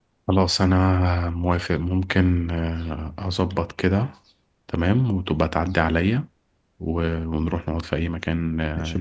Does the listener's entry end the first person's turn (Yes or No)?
Yes